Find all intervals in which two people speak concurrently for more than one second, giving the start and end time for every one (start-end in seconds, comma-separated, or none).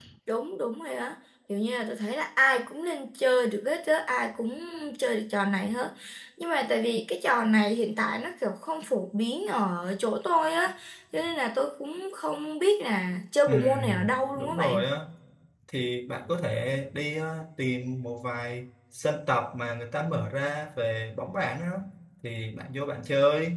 13.5-14.8